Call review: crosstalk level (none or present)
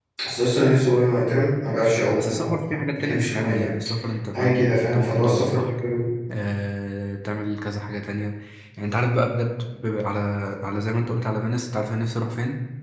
present